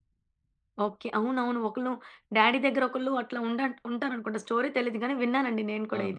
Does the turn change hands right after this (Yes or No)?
Yes